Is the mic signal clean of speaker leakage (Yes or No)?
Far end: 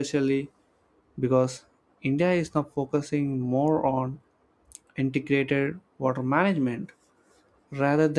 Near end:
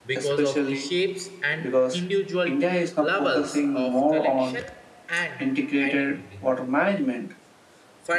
No